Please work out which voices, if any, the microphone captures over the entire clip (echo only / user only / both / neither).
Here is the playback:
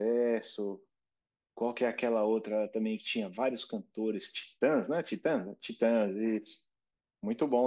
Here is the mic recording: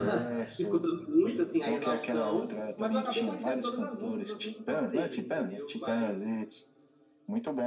both